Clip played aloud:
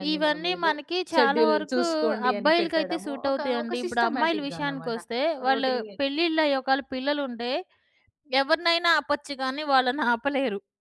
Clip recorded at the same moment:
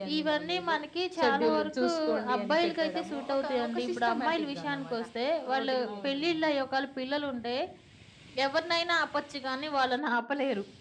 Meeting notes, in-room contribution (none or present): present